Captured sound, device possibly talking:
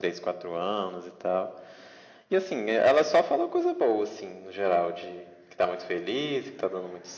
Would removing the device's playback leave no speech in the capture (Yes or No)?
Yes